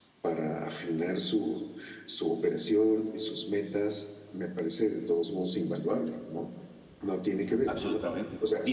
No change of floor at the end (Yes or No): No